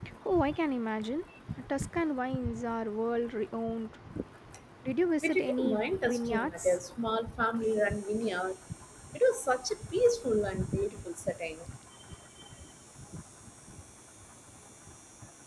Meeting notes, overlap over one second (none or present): present